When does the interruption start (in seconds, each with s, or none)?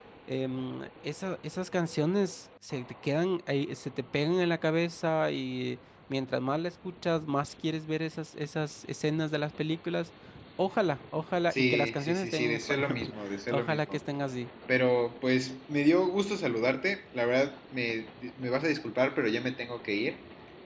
11.5 s